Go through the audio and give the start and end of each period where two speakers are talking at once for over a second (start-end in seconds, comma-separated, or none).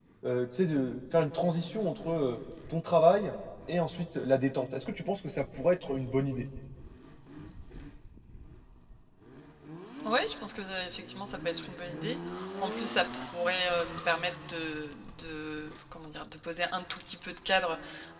none